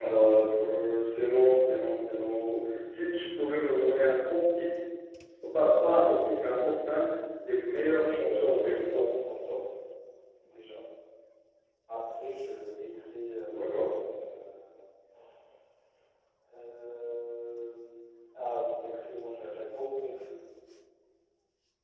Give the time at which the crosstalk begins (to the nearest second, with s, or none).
8 s